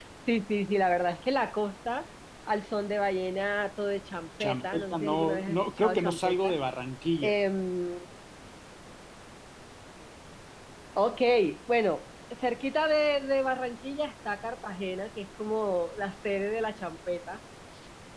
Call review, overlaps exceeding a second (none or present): present